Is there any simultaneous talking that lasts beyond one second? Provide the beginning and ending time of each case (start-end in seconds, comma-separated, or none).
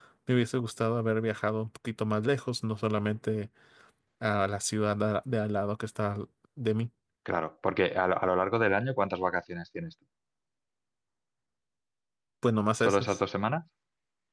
none